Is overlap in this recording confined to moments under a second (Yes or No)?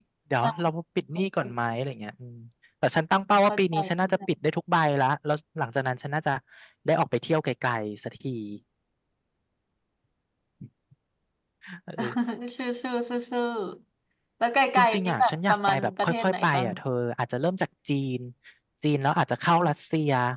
No